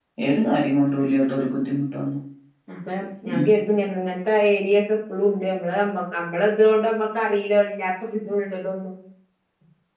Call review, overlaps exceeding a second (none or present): none